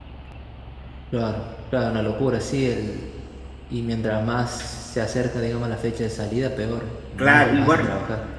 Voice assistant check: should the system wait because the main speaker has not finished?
No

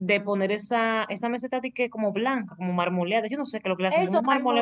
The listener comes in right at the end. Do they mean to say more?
Yes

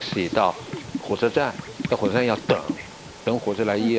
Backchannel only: Yes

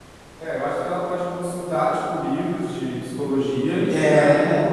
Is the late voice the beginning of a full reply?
No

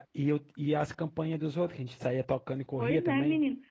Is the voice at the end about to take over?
Yes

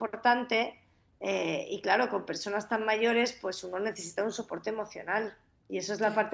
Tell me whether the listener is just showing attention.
Yes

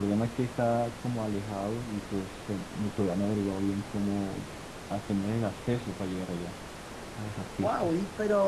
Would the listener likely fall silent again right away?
No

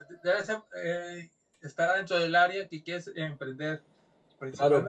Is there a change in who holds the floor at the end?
Yes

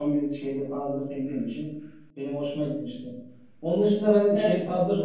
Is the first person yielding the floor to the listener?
No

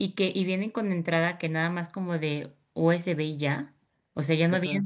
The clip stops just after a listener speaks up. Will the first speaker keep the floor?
Yes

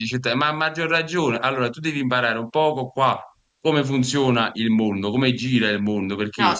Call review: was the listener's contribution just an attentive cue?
No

